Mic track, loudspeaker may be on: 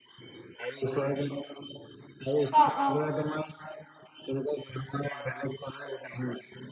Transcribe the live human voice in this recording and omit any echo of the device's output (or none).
অ', অ',